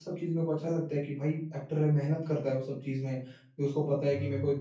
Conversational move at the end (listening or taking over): listening